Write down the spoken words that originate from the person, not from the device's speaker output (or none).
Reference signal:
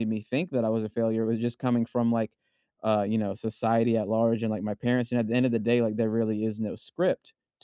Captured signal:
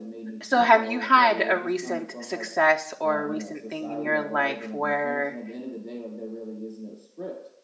So, have you had a recent success or a recent thing in your life where,